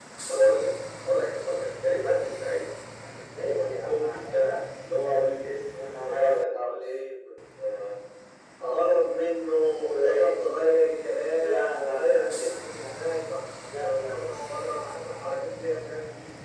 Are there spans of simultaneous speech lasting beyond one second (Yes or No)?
Yes